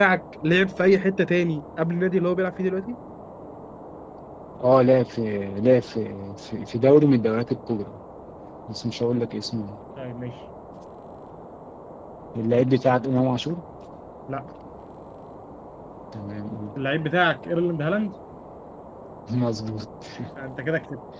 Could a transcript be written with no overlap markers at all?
Yes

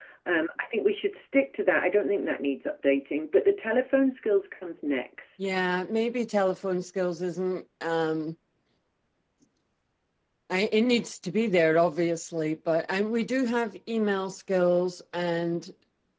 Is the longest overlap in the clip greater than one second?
No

